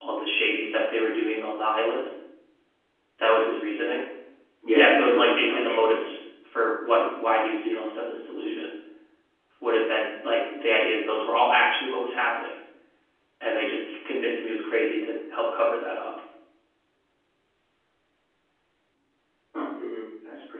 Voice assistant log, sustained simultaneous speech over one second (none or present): present